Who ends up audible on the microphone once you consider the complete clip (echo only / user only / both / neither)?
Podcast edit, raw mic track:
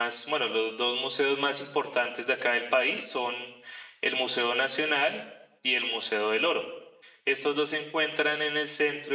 user only